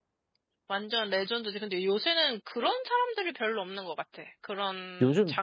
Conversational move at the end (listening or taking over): listening